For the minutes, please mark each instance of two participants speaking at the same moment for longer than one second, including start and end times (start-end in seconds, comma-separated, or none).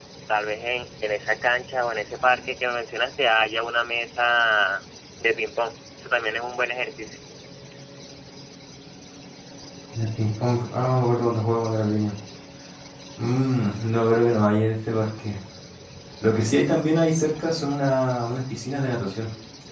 none